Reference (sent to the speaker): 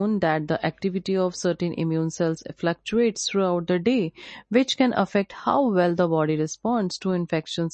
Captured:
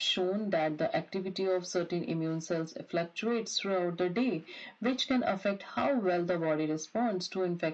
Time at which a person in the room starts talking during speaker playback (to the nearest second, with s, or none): none